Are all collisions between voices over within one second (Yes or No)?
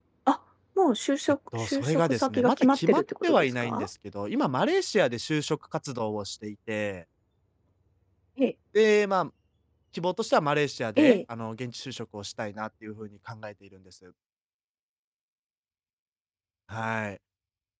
No